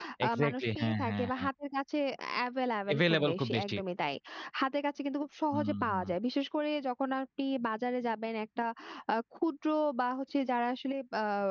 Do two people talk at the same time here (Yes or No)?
Yes